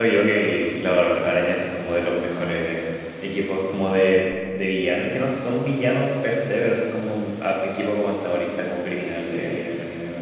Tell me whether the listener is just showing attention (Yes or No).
Yes